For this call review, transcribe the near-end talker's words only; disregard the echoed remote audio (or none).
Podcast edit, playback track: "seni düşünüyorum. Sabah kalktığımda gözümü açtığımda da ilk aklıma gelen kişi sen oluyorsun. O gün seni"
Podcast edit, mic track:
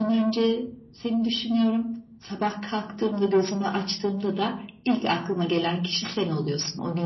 none